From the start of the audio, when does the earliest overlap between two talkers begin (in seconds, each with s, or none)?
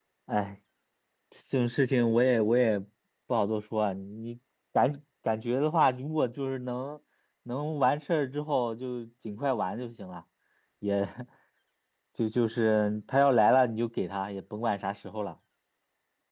none